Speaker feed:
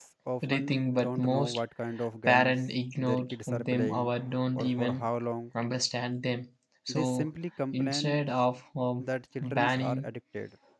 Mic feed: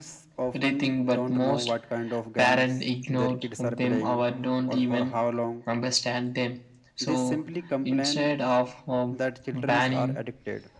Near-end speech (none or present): none